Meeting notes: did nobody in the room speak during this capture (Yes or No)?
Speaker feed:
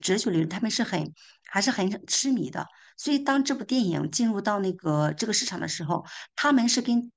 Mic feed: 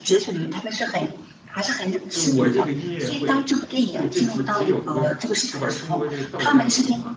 No